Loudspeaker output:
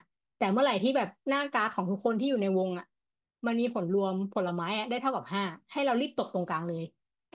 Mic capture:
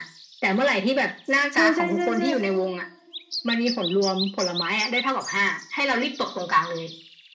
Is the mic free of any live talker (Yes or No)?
No